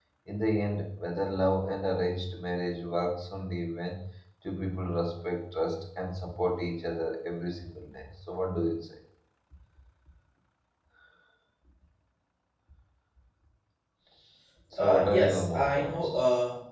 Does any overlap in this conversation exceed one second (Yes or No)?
Yes